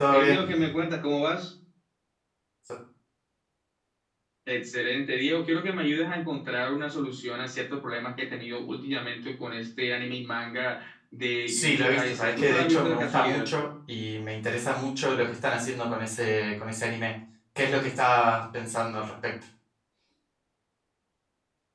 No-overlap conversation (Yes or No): No